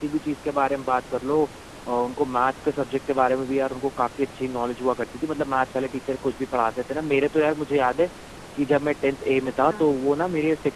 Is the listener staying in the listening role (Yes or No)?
Yes